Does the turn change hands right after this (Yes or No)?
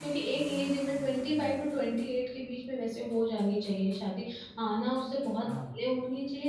No